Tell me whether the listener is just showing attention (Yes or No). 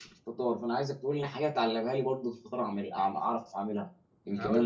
No